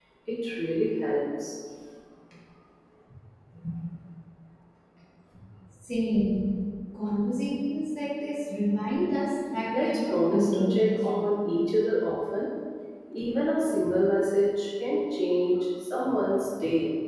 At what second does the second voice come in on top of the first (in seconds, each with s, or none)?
9.7 s